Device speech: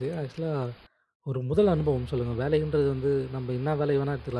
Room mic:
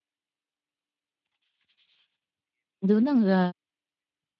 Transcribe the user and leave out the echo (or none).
அது வந்து அங்க